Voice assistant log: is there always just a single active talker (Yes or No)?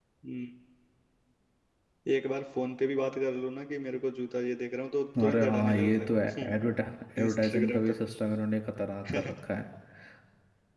No